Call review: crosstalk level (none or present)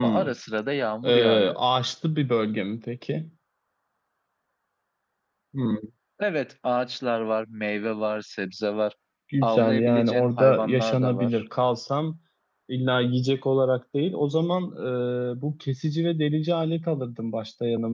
present